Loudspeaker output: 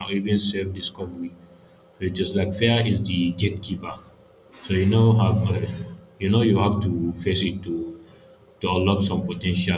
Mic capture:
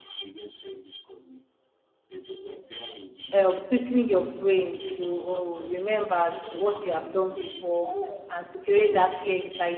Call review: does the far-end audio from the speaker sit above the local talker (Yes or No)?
No